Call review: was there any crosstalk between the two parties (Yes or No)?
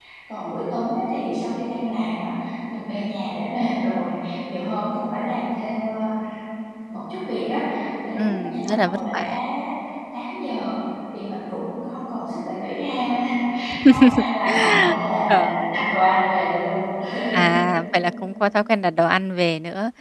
Yes